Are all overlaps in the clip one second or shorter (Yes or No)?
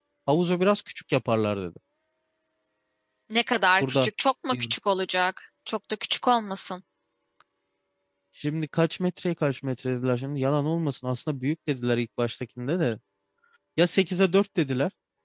Yes